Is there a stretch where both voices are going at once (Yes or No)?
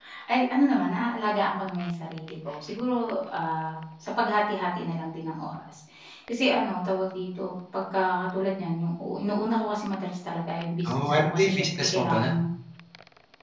Yes